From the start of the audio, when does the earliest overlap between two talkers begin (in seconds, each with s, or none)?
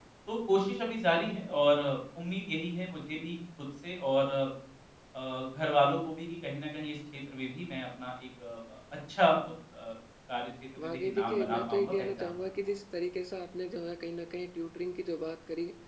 10.8 s